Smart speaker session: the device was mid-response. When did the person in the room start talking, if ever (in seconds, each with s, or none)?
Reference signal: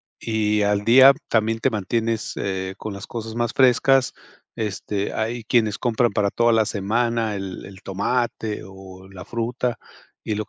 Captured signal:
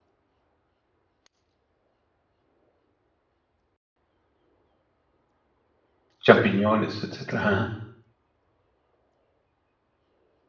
6.2 s